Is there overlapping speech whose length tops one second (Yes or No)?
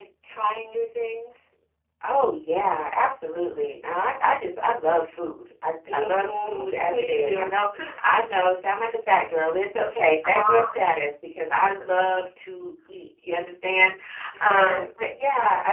Yes